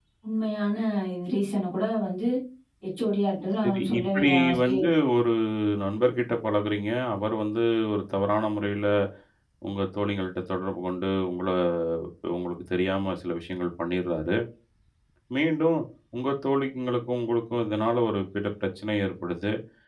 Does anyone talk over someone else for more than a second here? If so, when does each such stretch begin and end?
3.6-4.8

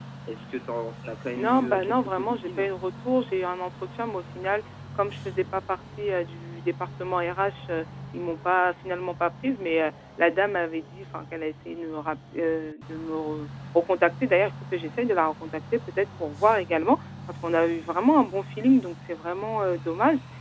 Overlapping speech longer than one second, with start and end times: 1.4-2.7

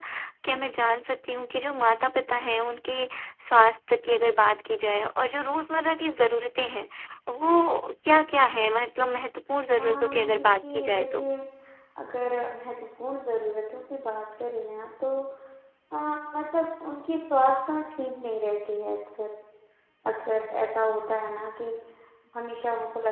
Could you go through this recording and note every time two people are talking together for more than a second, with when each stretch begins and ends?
9.8-11.2

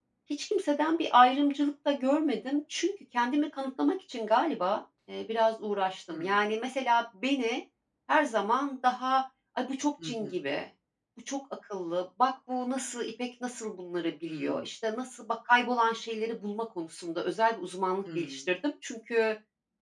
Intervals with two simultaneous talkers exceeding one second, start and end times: none

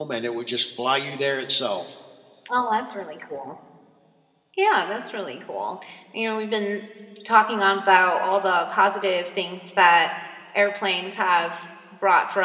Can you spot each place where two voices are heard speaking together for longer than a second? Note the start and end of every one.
none

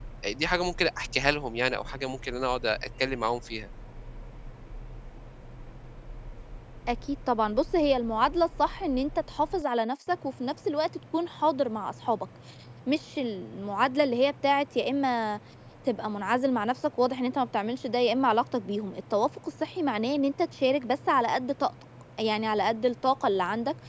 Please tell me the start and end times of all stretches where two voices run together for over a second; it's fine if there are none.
none

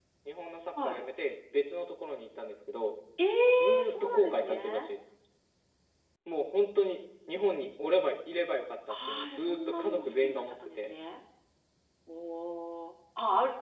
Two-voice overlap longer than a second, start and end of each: 3.6-4.9, 9.1-10.9

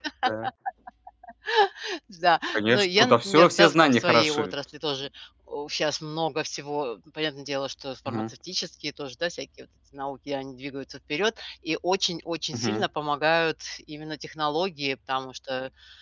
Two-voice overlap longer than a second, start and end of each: 2.5-4.5

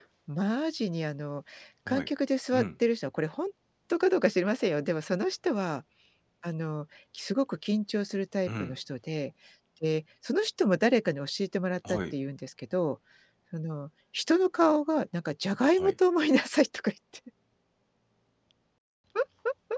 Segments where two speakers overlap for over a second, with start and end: none

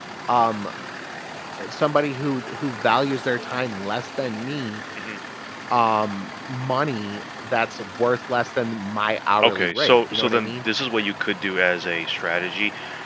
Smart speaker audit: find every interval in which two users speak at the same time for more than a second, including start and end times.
9.4-10.6

